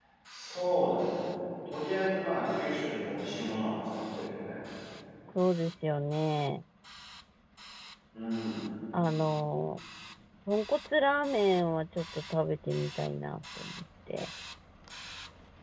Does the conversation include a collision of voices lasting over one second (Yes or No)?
No